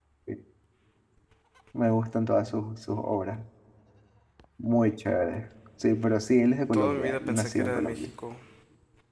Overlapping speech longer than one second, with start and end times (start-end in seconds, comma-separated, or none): 6.7-8.1